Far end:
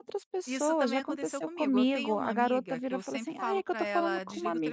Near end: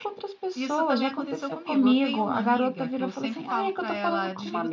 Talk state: echo only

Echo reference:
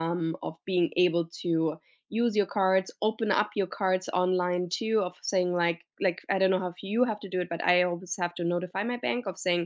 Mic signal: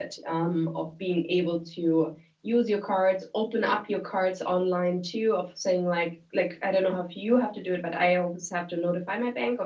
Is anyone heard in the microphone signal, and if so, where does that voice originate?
echo only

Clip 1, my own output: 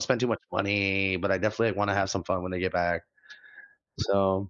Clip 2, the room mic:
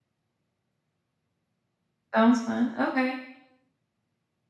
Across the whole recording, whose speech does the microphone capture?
user only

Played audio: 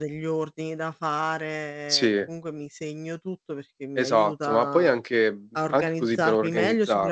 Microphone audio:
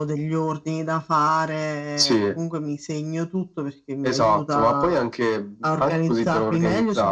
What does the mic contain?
echo only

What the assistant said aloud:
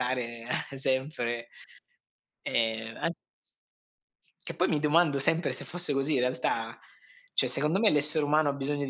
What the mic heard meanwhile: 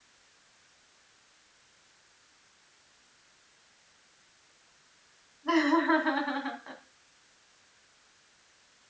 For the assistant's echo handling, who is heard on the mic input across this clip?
user only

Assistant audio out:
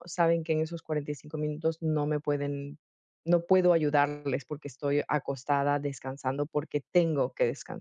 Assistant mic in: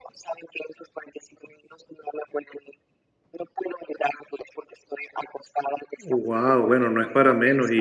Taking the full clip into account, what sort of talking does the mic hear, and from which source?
both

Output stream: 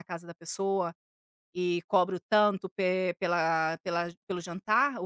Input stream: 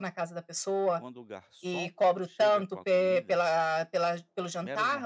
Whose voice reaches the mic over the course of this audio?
both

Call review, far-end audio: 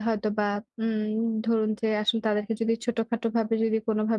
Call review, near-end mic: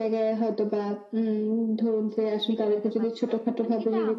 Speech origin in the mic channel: both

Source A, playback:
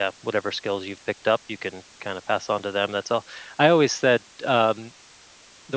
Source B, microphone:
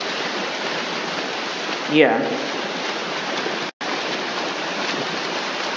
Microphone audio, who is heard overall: user only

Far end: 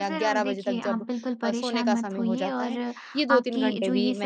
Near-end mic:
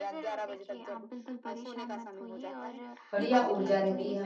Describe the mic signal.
both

